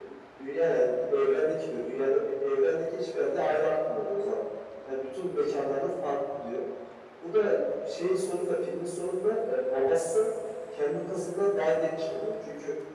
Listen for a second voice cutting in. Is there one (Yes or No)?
No